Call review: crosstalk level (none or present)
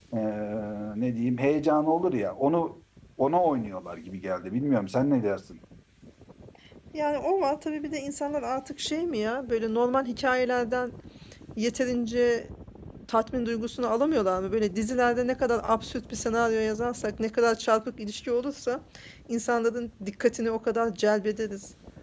none